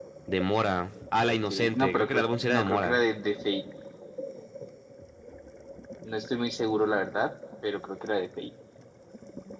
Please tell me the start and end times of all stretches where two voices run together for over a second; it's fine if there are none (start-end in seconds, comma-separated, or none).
1.2-3.0